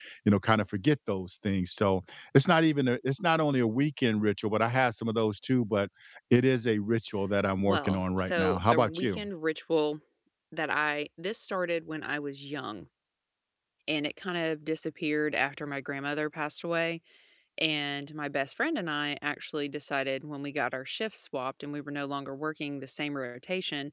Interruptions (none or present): present